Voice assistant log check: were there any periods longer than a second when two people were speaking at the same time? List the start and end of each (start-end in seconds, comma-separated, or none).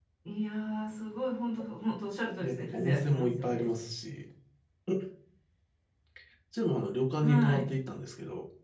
2.4-3.7